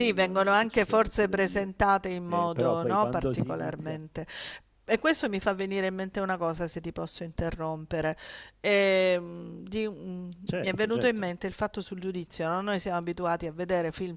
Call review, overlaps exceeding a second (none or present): present